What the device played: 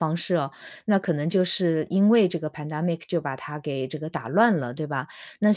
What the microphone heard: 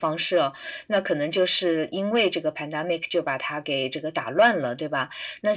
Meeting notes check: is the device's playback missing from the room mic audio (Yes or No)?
No